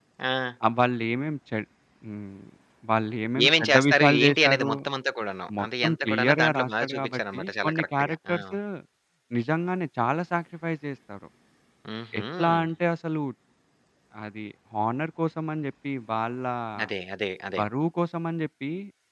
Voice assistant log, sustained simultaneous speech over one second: present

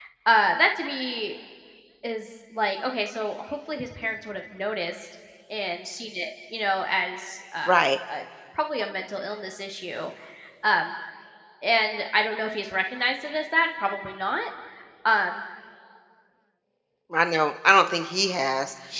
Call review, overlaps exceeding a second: none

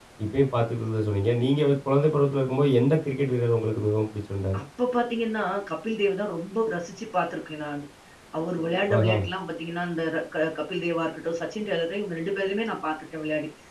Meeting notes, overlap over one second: none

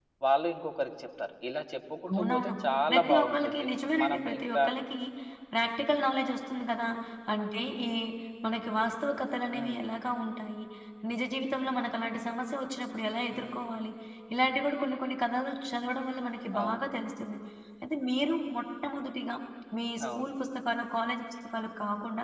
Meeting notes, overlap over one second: present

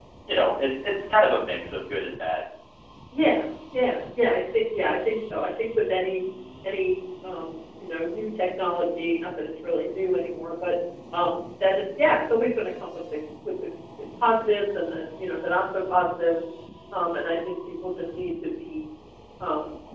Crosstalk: none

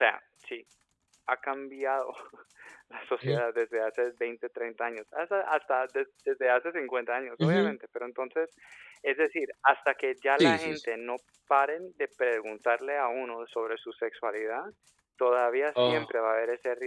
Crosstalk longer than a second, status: none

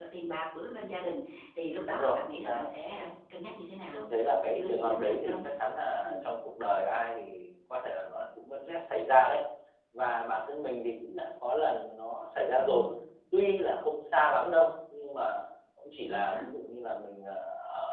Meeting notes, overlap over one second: present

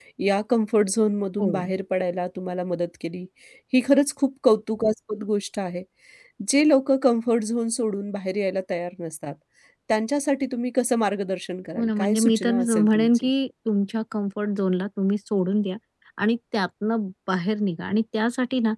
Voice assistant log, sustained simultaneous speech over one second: present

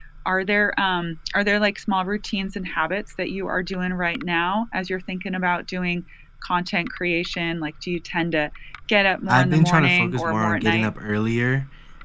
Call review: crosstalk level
present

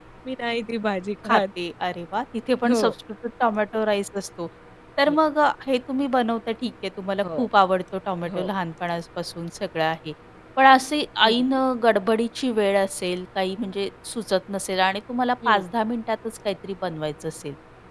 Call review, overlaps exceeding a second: none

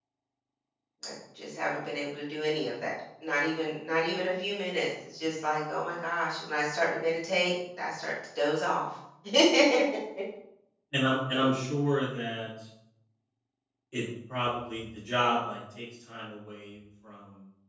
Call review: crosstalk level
none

